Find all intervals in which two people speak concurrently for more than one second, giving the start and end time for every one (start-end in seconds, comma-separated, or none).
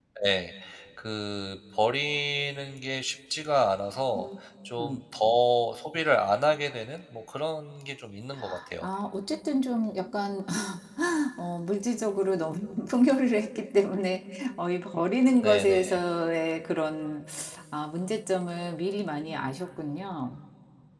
none